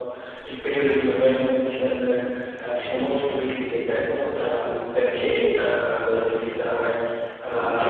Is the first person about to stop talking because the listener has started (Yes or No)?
No